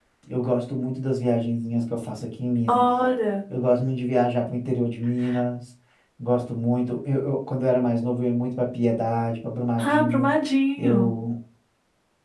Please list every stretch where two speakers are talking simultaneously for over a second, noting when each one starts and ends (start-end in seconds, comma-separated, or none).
none